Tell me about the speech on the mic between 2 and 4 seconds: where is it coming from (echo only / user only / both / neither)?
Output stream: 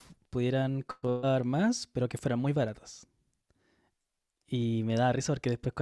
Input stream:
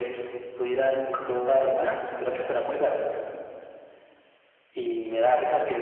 echo only